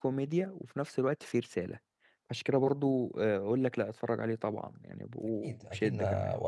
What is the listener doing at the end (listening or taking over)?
taking over